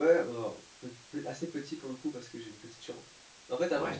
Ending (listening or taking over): listening